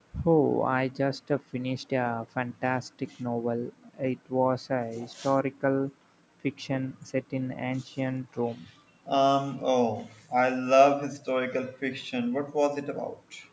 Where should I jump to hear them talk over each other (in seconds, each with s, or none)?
none